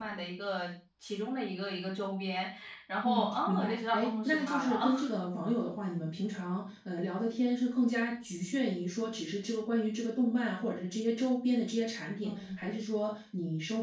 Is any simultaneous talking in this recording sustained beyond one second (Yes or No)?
Yes